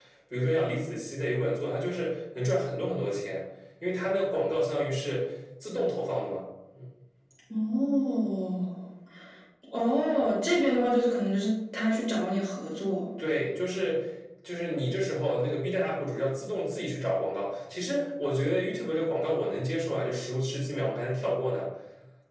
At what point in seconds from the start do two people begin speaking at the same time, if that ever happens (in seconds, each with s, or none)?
none